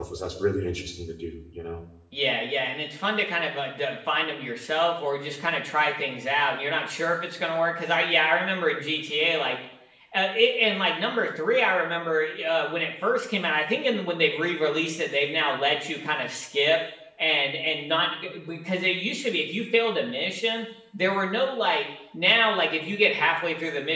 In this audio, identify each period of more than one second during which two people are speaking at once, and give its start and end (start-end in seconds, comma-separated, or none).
none